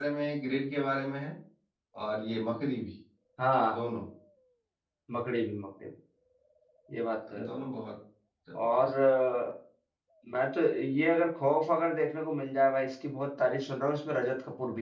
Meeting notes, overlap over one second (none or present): none